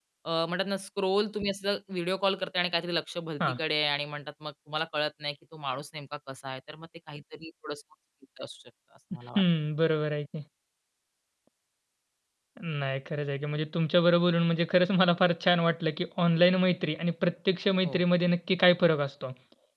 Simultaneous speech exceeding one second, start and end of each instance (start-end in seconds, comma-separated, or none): none